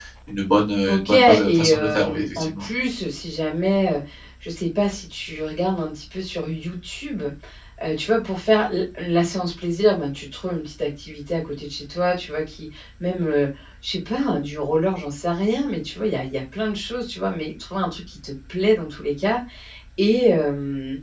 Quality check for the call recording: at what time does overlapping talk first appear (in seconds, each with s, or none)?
0.9 s